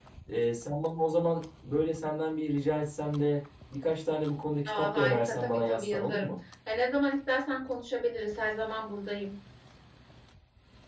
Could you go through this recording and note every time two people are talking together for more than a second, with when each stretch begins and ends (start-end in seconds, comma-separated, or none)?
4.7-6.3